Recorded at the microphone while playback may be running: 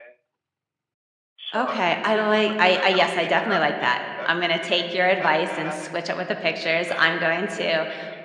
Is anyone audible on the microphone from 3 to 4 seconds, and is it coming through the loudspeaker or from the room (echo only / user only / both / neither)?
both